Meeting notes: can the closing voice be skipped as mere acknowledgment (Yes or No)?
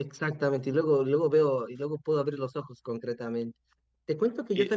Yes